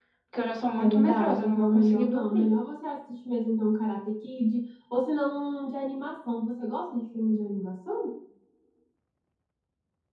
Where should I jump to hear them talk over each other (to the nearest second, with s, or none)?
1 s